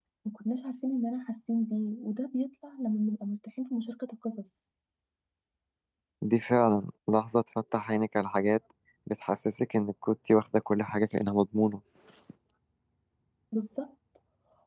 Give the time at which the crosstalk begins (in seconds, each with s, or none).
none